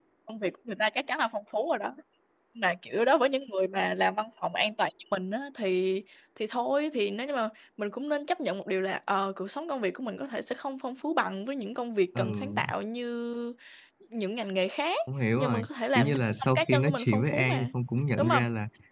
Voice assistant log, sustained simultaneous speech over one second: present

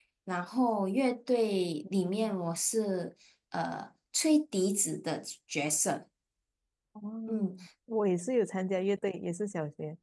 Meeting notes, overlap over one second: none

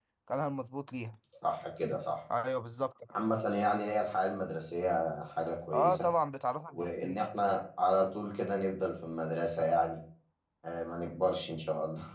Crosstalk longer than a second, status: none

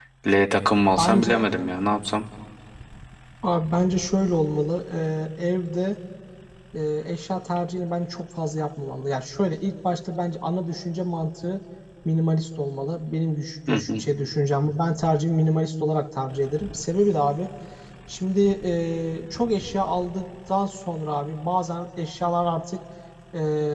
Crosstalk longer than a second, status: none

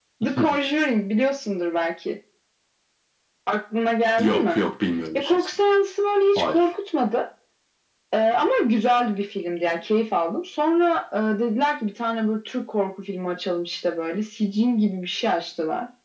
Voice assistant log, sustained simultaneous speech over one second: none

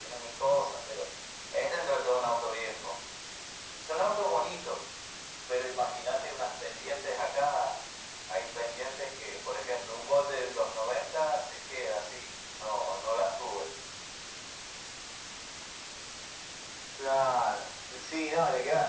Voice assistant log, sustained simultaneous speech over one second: none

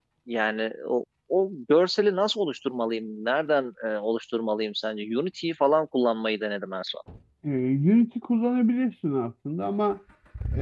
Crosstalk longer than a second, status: none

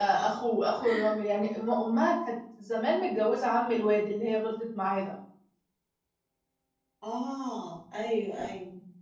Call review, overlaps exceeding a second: none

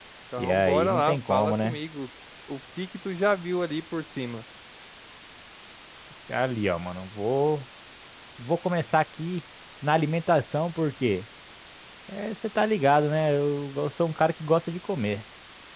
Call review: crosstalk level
present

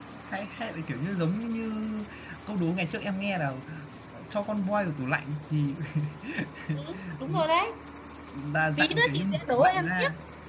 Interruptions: present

